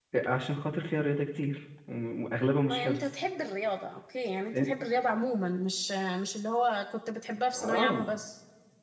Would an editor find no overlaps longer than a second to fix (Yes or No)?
Yes